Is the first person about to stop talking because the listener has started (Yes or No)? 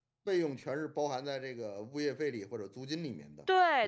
Yes